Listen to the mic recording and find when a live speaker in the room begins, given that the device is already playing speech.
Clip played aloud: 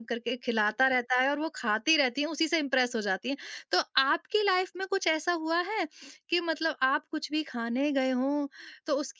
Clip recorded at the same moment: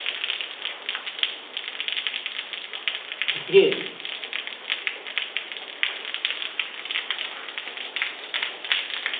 3.3 s

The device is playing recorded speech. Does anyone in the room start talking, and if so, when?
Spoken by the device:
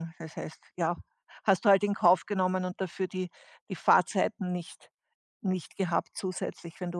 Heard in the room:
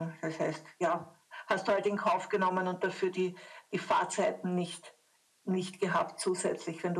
none

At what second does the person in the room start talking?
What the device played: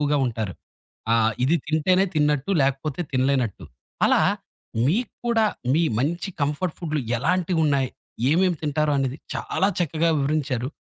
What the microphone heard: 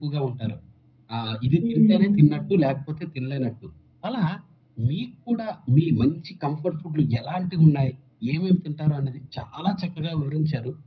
1.6 s

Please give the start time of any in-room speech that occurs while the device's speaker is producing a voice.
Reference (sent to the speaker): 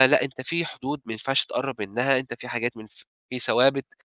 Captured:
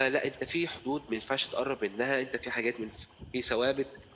none

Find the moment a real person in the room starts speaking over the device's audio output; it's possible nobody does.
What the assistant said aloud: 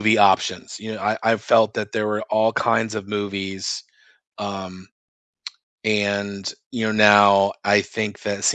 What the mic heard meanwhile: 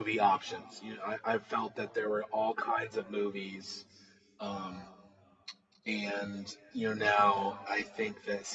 none

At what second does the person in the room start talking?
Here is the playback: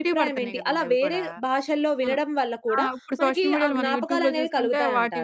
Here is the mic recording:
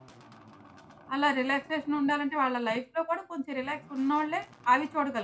1.1 s

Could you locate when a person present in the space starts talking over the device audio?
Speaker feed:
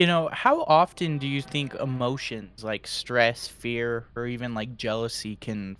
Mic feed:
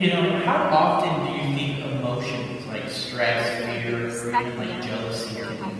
3.3 s

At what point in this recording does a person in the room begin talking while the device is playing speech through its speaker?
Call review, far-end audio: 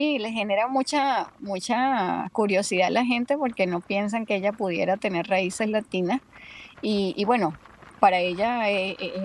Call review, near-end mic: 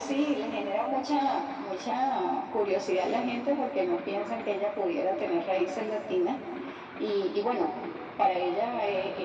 none

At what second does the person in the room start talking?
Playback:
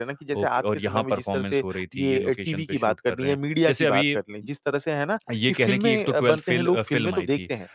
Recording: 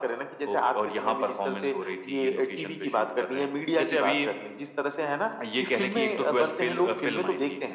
none

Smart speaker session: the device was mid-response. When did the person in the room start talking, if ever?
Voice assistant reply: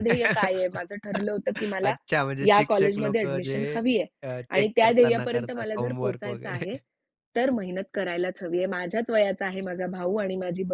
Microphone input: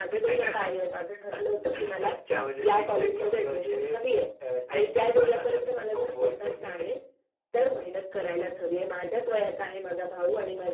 none

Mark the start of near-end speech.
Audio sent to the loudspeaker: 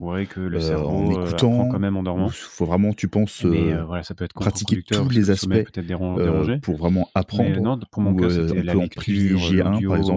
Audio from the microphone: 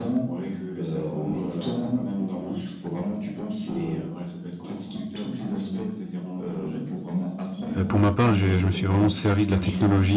7.8 s

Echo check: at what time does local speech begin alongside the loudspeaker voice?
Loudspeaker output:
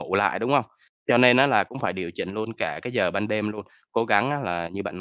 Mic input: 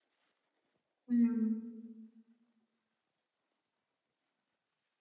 1.1 s

